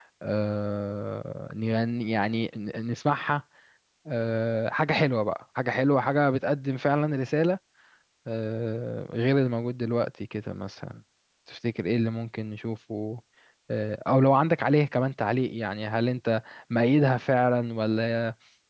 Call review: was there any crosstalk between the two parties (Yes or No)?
No